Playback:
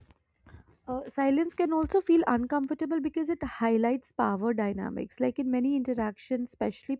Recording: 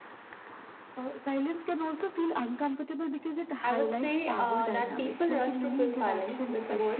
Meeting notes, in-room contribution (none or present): present